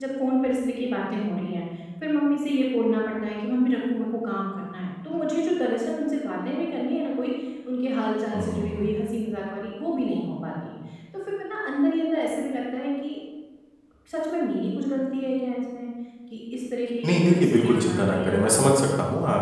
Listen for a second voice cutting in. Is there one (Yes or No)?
Yes